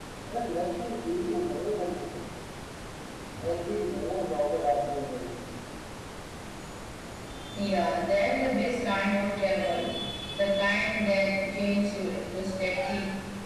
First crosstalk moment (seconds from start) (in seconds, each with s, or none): none